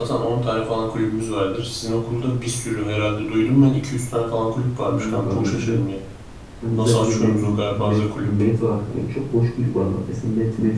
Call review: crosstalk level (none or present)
present